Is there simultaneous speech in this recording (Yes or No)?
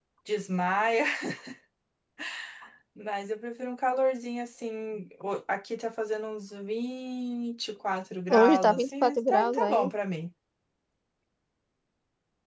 Yes